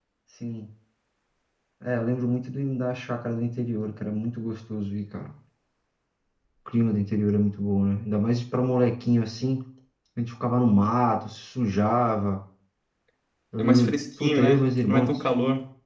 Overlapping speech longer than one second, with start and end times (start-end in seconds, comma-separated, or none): 13.6-15.1